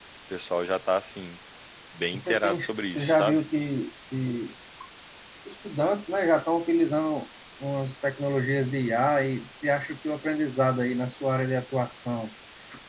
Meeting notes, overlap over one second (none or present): present